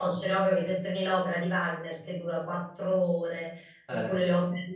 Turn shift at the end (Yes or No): No